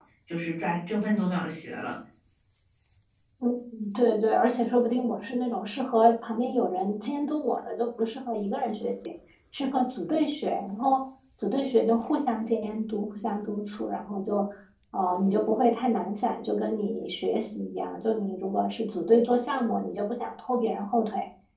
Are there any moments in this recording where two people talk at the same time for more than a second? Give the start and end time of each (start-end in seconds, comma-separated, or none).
none